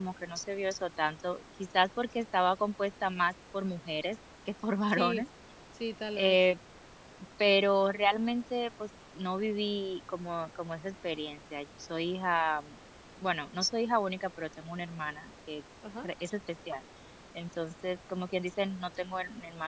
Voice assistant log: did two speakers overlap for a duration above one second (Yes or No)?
No